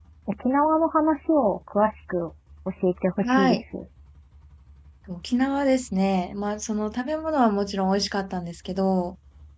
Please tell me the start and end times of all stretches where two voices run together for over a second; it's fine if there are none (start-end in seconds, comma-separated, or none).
none